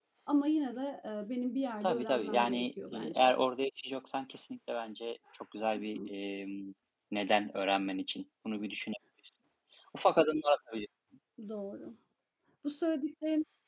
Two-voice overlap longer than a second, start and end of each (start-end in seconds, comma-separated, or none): 1.8-3.3